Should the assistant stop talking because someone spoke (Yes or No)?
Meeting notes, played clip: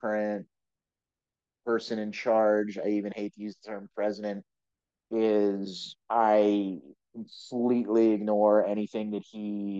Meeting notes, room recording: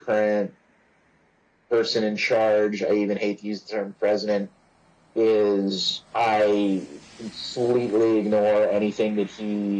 No